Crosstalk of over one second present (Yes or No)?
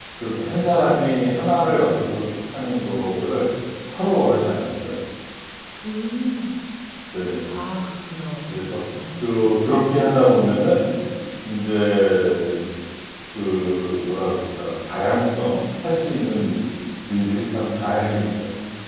No